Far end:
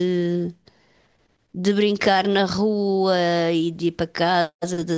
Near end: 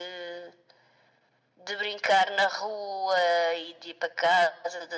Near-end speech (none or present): none